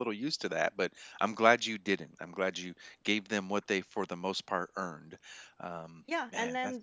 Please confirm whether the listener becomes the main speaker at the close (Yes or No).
Yes